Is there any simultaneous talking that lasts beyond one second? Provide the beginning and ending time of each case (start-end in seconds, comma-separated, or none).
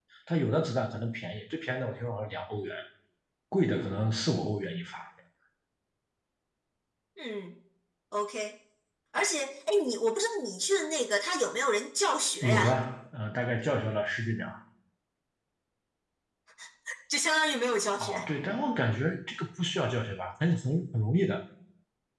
none